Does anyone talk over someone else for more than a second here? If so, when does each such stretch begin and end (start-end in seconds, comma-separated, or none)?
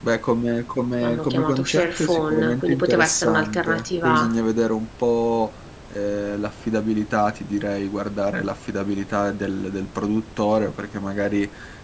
1.0-4.3